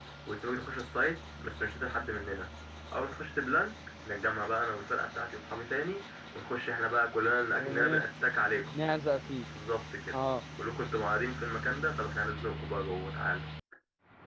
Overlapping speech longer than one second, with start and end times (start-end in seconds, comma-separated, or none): none